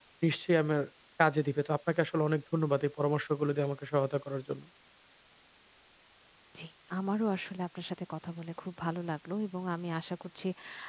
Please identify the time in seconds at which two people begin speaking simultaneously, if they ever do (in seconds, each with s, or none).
none